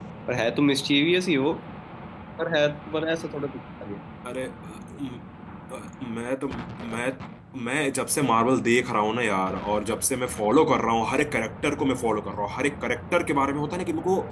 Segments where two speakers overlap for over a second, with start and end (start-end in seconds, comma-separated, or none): none